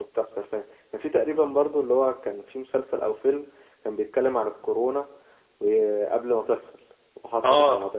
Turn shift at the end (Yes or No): Yes